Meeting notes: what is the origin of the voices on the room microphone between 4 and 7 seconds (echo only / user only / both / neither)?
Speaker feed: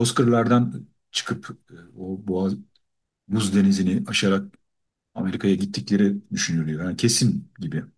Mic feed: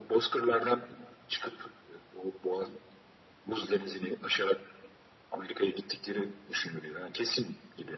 echo only